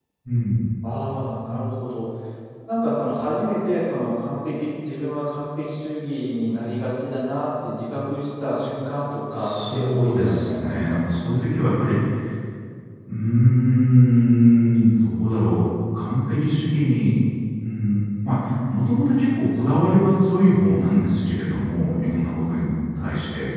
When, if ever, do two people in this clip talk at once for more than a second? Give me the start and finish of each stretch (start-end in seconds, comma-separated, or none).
9.3-11.0